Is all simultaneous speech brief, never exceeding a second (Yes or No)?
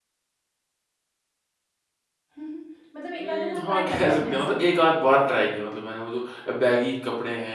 No